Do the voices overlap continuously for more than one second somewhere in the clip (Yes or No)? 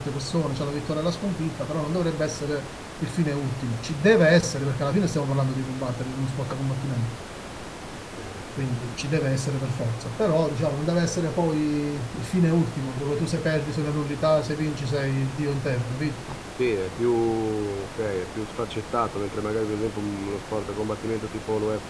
No